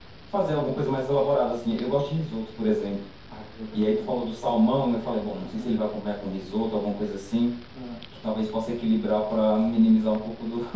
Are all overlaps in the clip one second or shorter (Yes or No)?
Yes